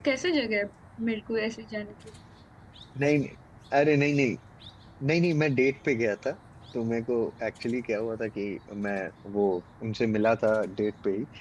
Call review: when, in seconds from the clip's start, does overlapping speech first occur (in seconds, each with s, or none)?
none